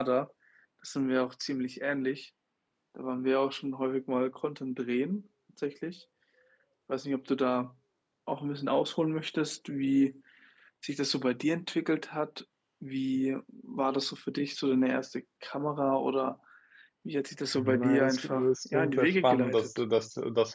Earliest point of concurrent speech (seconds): 17.6 s

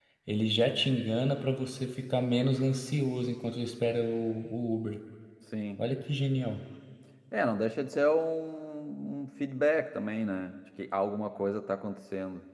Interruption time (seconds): none

